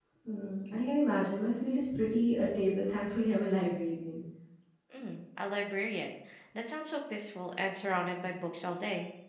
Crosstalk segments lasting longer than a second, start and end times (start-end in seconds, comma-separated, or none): none